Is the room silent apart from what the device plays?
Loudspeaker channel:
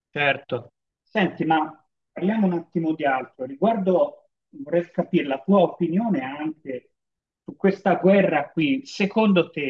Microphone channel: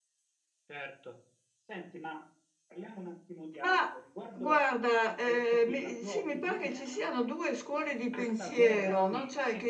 No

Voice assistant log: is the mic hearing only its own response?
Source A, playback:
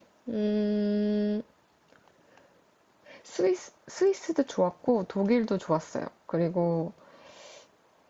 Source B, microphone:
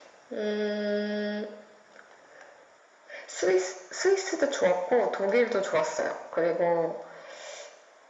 Yes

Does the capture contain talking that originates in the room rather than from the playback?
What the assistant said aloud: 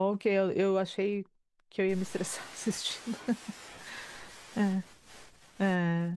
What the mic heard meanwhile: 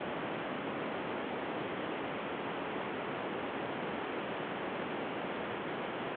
No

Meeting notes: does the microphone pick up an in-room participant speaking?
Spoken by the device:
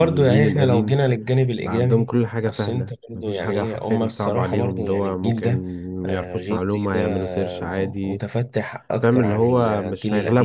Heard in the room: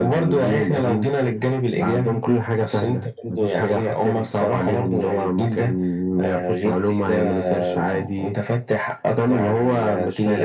No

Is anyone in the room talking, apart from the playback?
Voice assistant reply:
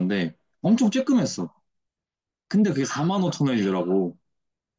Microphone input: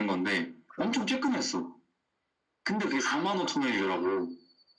Yes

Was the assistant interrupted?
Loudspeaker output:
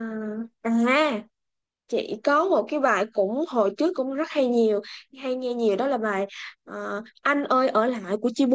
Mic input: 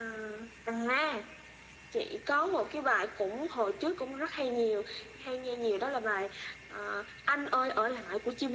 No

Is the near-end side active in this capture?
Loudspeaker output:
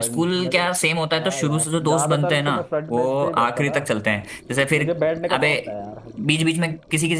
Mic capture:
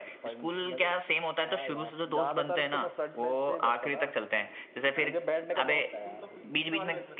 Yes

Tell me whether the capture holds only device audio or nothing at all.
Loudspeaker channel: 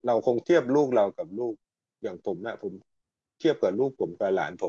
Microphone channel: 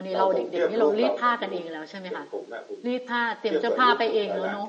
No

